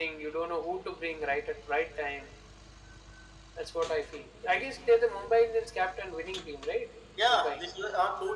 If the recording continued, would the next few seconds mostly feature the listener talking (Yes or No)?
Yes